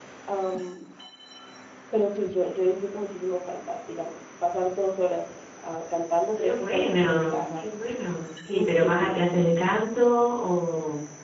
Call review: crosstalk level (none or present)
present